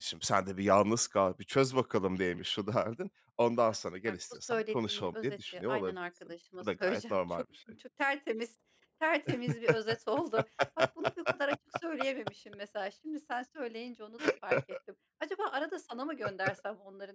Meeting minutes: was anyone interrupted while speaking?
Yes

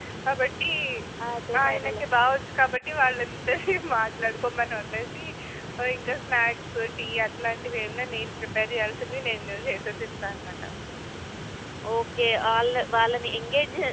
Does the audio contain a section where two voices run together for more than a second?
No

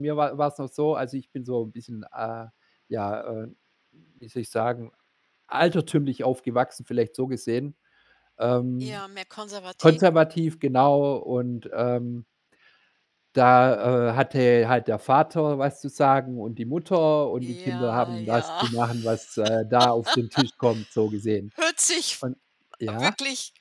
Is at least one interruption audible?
Yes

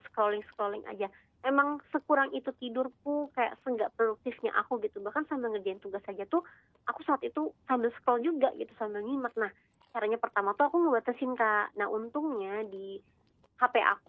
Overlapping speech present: No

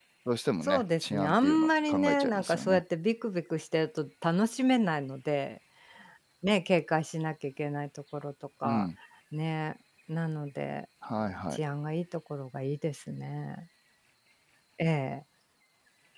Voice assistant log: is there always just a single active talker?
No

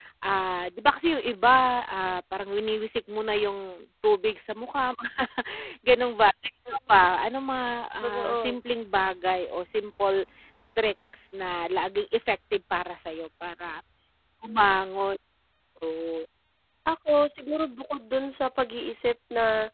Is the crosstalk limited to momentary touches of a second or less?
Yes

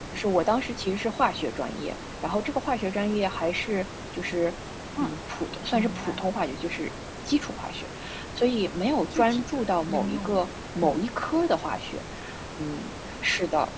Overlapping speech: Yes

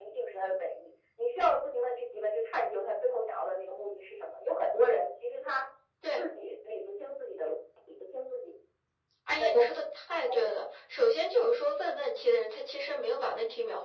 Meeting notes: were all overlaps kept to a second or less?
Yes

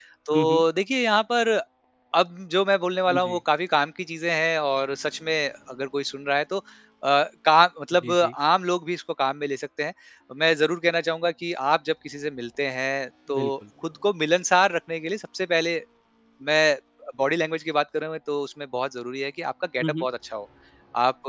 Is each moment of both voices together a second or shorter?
Yes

